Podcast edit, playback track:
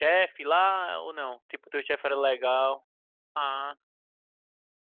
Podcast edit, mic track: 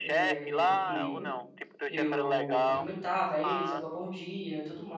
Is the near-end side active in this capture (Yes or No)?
Yes